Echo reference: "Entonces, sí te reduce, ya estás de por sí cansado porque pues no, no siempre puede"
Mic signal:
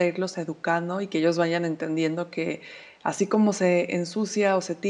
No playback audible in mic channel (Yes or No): Yes